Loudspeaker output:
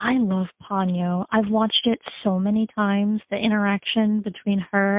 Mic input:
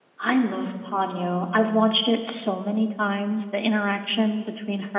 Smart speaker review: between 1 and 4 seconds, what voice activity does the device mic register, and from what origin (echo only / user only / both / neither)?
echo only